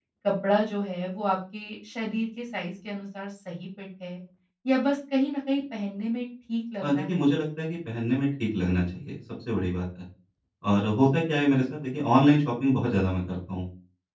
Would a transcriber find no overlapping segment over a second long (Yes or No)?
Yes